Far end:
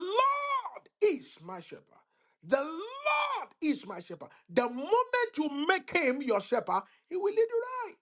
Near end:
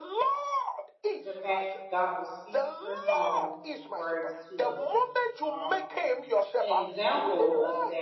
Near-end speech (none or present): present